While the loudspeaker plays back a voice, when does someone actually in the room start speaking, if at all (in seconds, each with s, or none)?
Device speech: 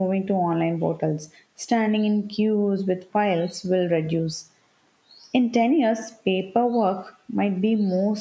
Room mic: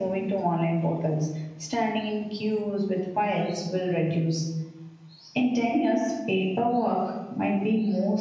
none